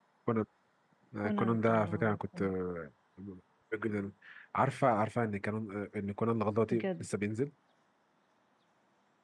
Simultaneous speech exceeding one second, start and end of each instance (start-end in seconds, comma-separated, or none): 1.2-2.5